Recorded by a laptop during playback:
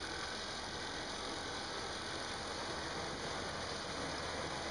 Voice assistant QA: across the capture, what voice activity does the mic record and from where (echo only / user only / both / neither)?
neither